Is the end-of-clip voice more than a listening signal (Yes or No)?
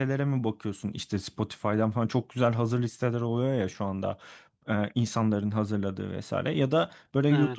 No